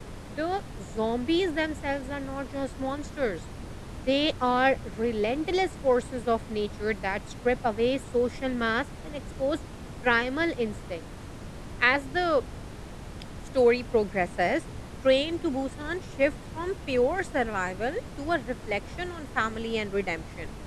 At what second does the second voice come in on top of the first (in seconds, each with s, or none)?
none